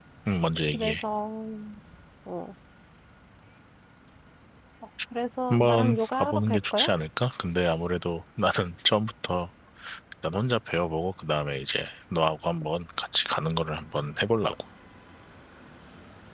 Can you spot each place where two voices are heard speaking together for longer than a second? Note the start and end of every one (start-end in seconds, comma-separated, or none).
5.5-6.9